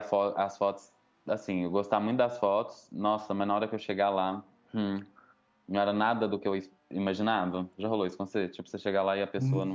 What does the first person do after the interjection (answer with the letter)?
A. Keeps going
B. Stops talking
B